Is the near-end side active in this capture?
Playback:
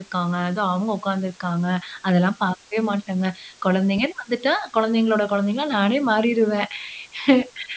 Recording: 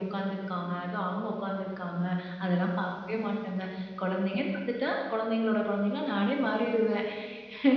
No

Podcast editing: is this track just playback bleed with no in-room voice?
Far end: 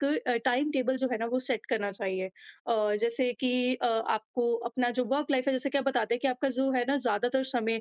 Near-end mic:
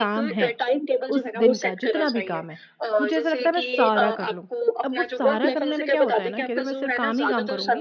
No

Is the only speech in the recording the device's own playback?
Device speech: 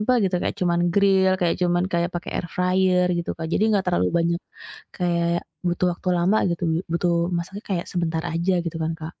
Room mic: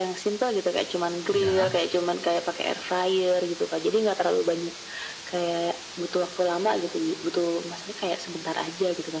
No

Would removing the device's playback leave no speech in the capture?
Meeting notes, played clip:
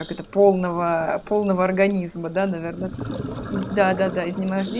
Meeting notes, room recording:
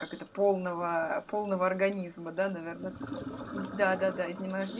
Yes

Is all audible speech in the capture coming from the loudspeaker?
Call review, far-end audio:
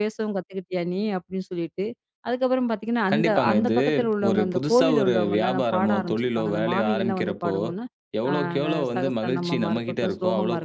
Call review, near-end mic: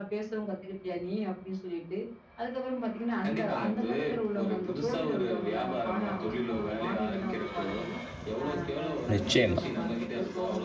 No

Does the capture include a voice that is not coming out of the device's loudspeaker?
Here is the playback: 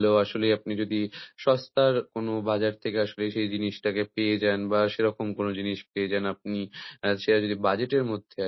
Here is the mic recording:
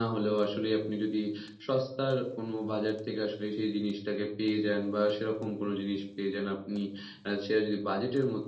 No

